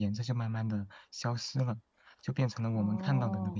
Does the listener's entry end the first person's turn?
No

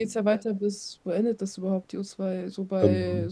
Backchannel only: Yes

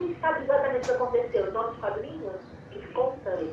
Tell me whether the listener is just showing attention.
No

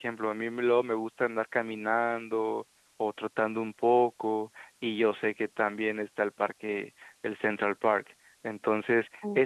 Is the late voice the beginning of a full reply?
No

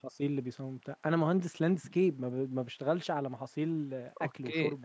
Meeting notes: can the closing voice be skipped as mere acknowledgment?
No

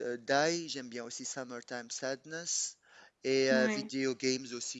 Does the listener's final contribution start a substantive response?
No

